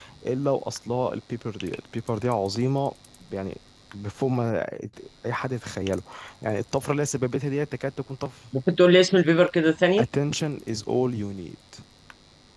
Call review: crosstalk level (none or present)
none